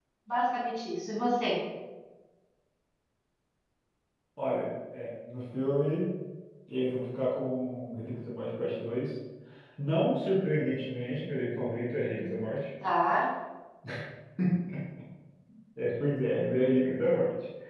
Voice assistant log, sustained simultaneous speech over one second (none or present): none